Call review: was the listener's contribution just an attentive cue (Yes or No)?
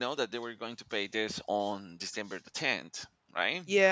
No